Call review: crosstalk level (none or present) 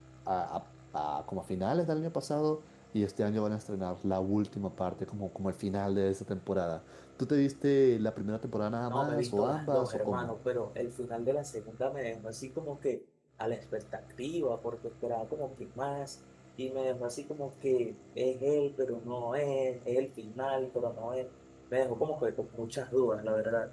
present